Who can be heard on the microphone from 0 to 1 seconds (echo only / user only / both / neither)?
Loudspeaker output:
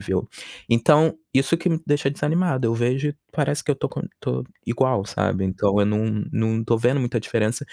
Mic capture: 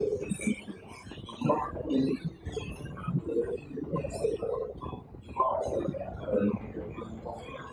echo only